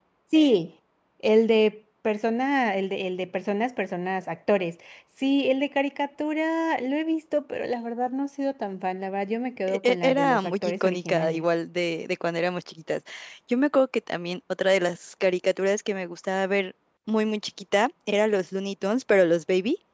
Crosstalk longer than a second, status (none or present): present